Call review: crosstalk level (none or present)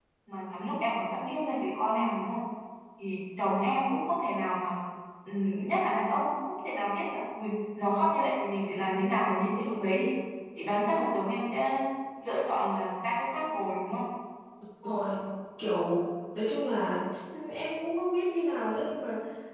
none